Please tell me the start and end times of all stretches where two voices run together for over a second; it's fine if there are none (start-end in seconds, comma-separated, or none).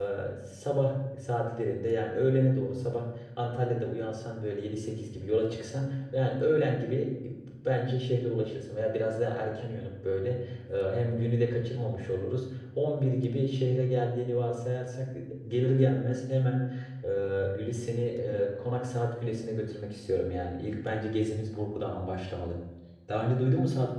none